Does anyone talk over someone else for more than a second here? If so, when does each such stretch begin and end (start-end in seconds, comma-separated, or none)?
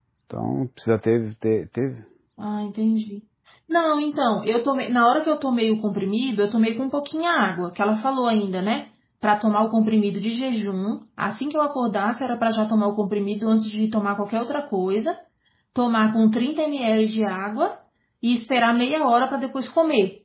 none